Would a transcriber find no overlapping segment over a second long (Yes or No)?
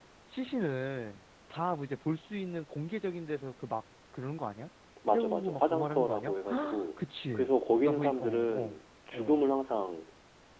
No